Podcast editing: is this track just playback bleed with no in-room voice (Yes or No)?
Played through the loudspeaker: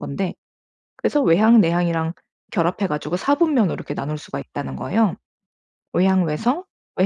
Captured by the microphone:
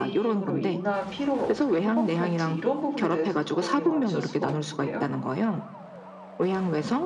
No